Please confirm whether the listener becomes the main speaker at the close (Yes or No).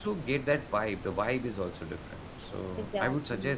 No